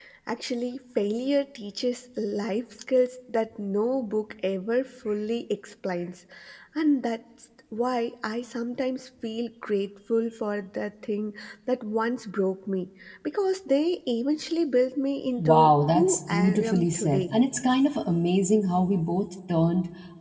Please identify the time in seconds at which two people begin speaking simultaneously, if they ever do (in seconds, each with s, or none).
15.4 s